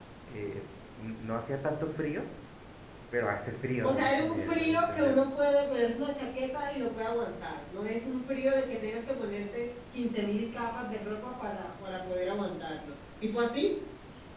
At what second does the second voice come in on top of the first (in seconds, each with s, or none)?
3.9 s